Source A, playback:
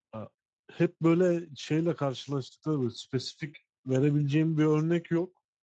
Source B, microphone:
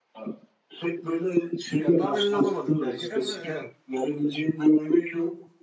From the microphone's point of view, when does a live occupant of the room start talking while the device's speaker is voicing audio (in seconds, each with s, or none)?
1.8 s